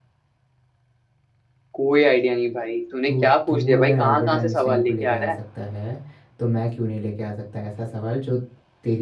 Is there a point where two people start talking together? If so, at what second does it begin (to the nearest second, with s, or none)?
3 s